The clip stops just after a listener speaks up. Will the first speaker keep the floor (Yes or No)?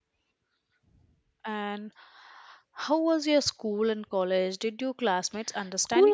No